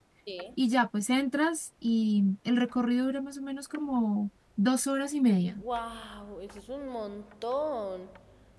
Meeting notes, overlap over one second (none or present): none